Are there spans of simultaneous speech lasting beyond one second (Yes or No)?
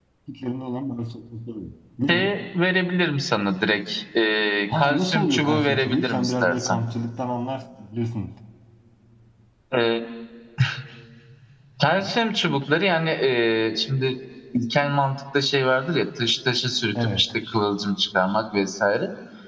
Yes